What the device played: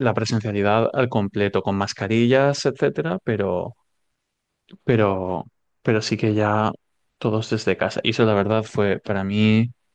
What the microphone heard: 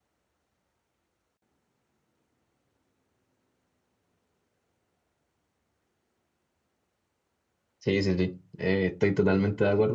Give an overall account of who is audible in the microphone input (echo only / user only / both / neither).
user only